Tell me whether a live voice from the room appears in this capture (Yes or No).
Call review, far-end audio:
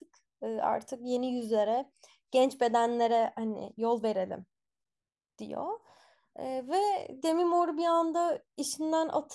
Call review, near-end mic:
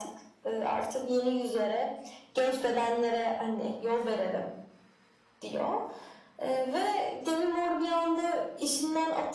No